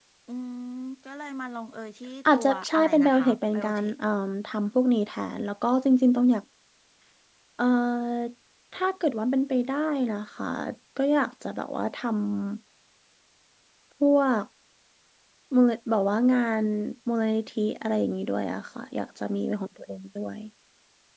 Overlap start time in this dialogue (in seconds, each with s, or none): 2.2 s